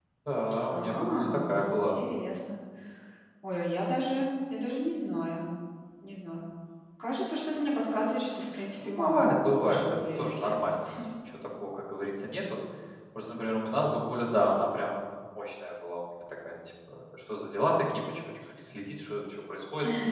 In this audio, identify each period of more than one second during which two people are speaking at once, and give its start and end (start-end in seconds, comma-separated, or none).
0.7-2.0, 8.8-10.7